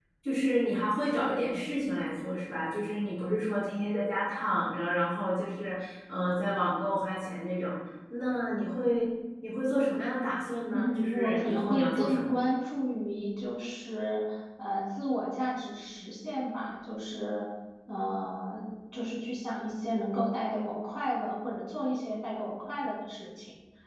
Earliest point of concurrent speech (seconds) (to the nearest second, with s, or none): 11 s